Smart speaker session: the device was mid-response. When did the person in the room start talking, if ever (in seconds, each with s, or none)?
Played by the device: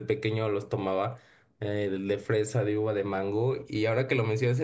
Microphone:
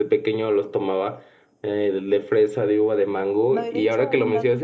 3.5 s